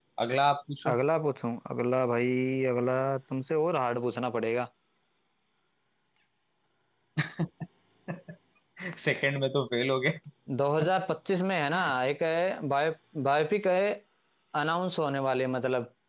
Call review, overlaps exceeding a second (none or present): none